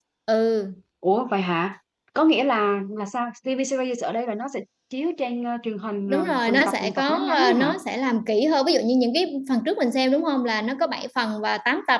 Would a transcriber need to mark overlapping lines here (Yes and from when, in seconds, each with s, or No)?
Yes, from 6.1 s